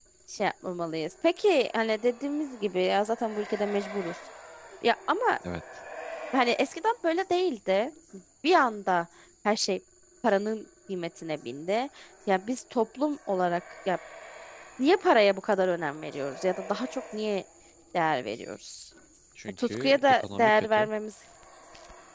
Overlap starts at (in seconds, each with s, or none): 19.6 s